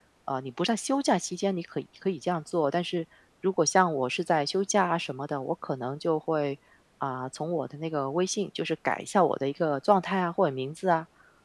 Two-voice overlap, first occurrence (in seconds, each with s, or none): none